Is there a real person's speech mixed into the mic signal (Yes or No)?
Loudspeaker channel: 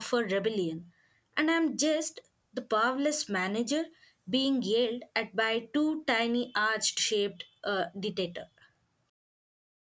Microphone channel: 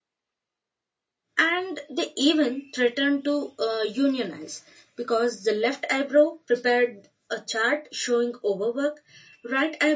Yes